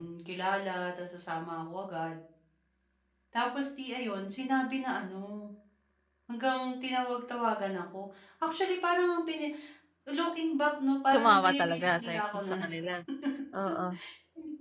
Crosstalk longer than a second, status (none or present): present